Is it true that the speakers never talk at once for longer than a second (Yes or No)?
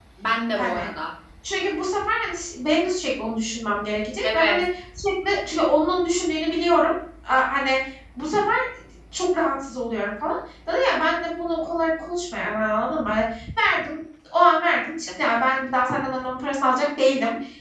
Yes